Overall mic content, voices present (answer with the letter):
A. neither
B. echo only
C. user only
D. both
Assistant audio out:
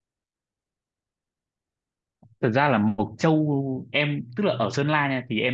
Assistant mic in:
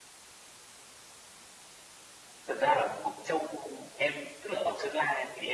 B